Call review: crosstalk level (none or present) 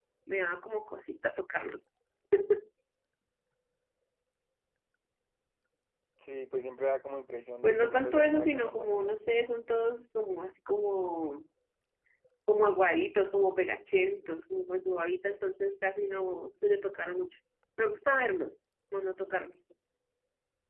present